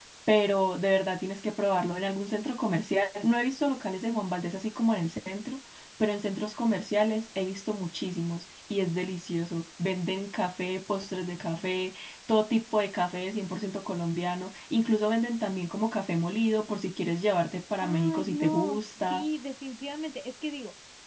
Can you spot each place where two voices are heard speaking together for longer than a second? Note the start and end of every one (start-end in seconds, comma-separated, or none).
17.8-19.2